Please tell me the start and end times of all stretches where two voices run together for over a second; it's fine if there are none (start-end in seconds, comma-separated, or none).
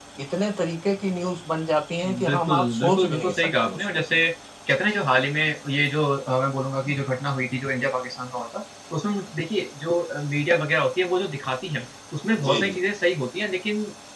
2.2-4.0